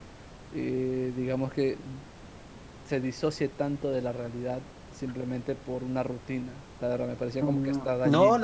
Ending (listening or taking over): taking over